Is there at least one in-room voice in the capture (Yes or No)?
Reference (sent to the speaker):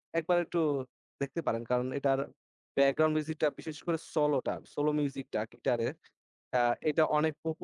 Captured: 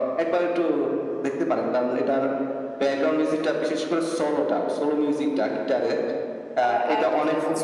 Yes